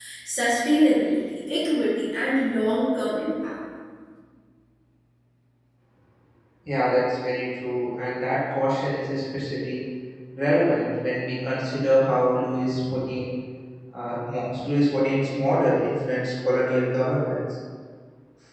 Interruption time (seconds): none

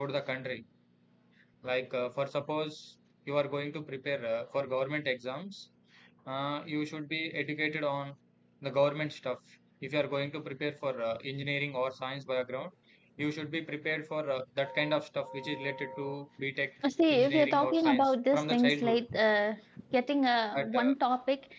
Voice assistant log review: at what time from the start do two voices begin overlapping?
17 s

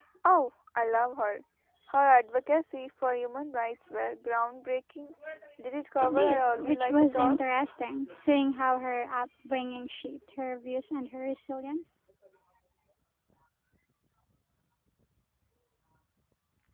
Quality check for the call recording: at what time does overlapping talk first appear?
6 s

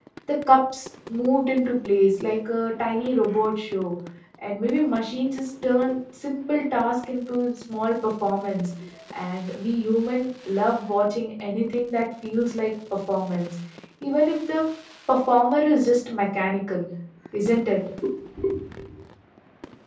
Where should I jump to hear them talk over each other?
none

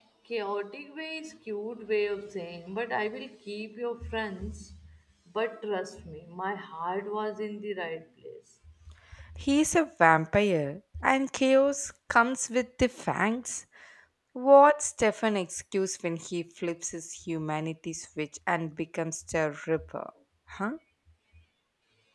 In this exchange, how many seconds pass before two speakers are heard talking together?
none

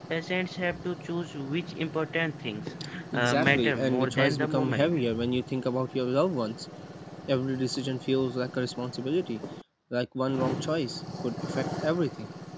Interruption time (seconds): 3 s

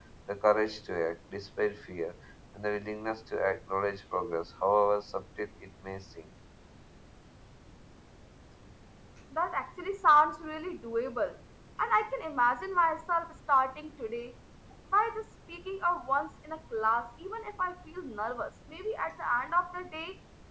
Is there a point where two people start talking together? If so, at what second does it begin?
none

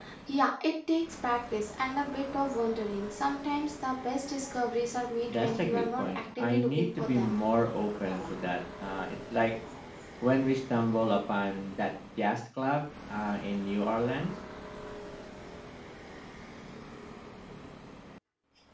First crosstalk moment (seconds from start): 5 s

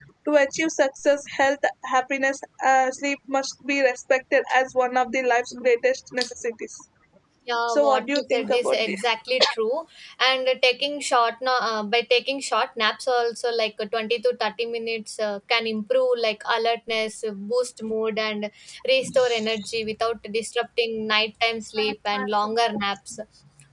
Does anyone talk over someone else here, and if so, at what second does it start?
8 s

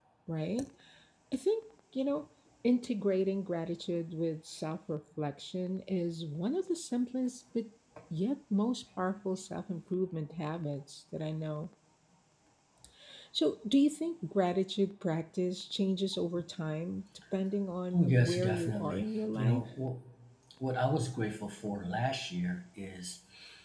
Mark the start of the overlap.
18 s

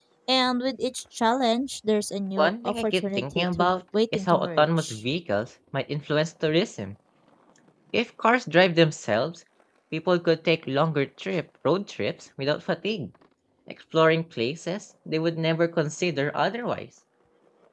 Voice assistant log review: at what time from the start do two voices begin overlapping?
2 s

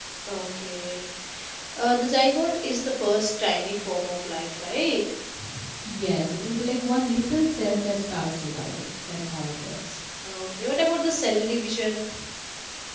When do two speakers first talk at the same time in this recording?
none

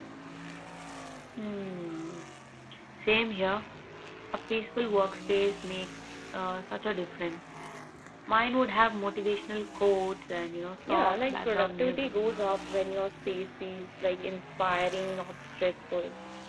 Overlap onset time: 11 s

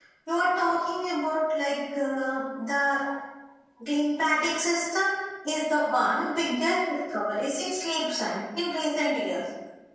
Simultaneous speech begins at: none

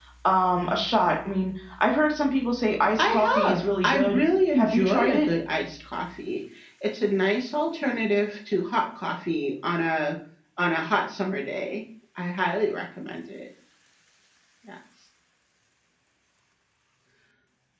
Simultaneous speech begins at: 3 s

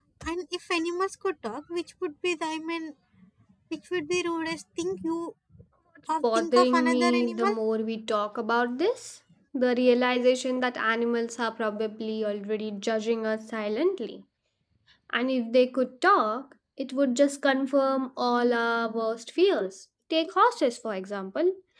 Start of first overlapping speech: 6 s

